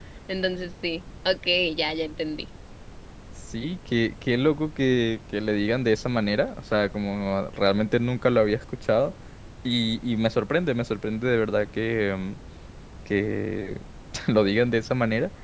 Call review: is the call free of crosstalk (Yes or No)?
Yes